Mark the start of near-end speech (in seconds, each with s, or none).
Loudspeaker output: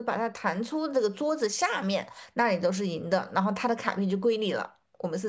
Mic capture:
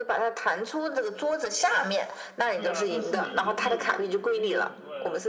2.5 s